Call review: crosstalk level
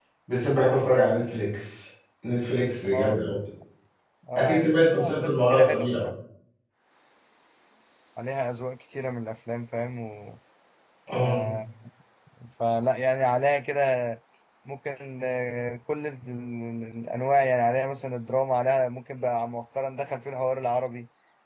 present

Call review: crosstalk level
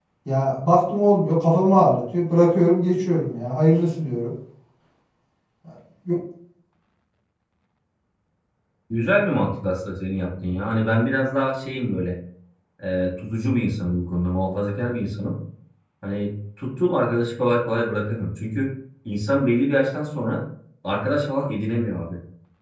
none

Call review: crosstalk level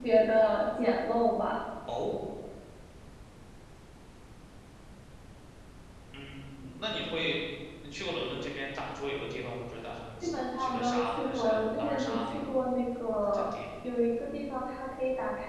present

